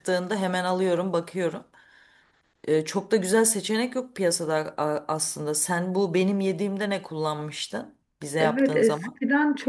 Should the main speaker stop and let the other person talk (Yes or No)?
Yes